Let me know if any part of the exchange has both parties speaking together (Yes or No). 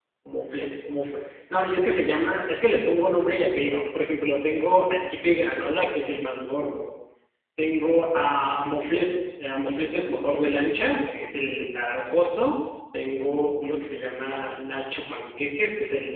No